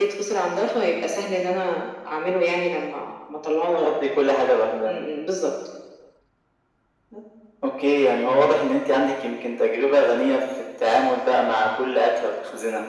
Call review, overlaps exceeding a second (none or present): none